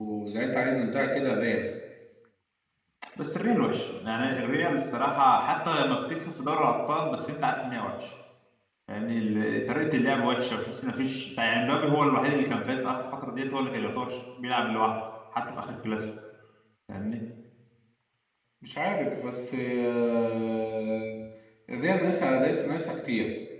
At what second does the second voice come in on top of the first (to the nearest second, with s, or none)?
none